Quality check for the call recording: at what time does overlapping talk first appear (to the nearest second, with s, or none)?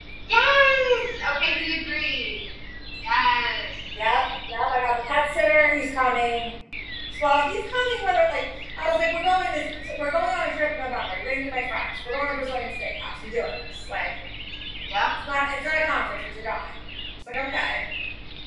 none